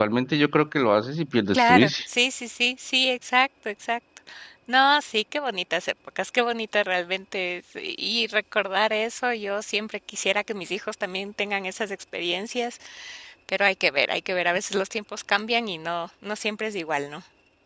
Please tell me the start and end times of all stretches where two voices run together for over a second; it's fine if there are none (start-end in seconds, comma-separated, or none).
none